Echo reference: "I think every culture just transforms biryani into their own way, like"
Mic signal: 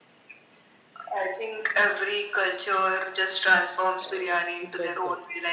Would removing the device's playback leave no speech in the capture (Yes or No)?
No